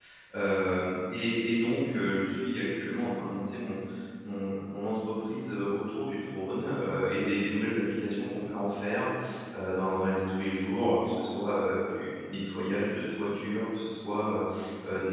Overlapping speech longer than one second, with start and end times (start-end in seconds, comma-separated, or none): none